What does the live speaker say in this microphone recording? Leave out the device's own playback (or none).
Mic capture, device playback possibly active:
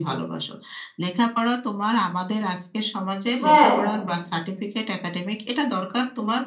হ্যাঁ,